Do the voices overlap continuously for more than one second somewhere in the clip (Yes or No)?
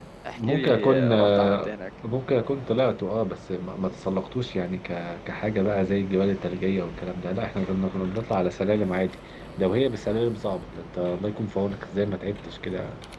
Yes